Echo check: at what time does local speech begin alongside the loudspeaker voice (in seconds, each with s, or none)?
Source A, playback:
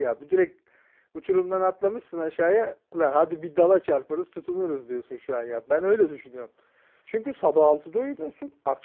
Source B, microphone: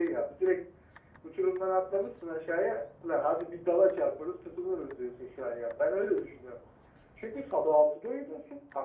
none